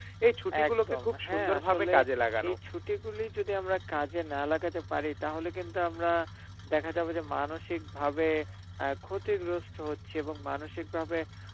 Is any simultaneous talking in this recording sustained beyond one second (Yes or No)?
Yes